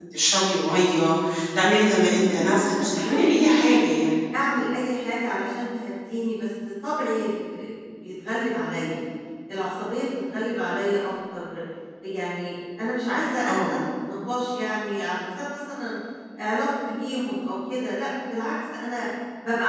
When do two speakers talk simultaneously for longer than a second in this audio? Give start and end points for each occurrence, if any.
2.2-3.8

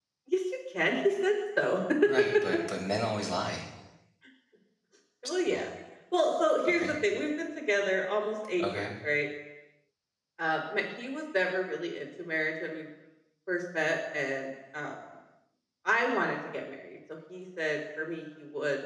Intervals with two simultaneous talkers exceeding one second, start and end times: none

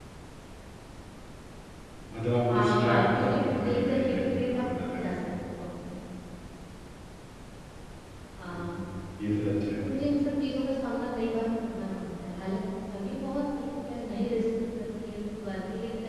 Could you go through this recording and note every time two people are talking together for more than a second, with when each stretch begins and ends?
2.5-5.0

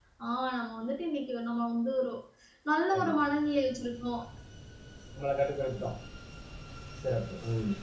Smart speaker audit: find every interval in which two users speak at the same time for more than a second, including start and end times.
none

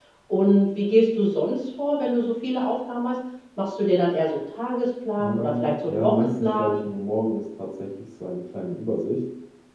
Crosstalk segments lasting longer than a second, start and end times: 5.2-6.8

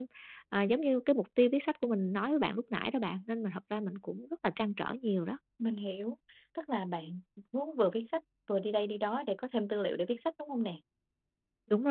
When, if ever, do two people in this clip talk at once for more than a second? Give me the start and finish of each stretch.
none

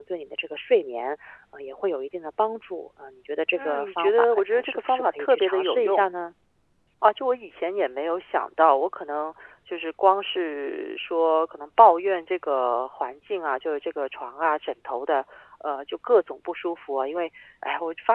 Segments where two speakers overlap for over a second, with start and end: 3.5-6.0

